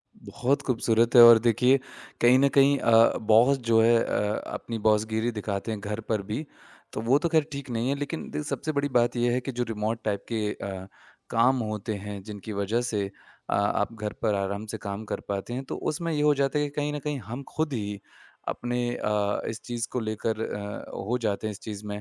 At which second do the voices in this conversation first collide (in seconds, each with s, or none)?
none